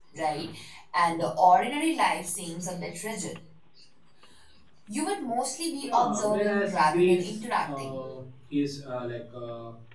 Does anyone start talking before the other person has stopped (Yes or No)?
Yes